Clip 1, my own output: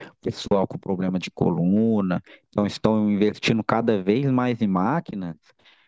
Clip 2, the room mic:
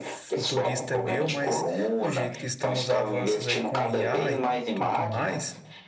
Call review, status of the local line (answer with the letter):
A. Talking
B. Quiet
A